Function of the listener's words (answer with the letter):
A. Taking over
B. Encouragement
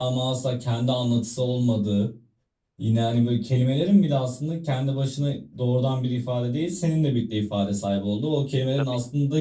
B